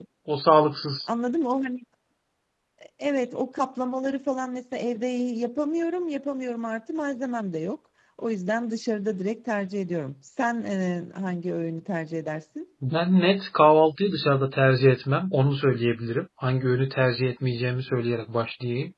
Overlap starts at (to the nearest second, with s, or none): none